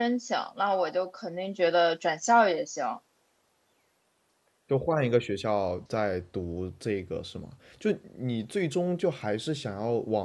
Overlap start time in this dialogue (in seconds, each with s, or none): none